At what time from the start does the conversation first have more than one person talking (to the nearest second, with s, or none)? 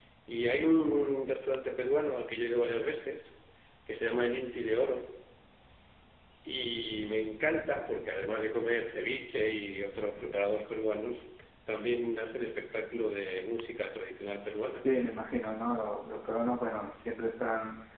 none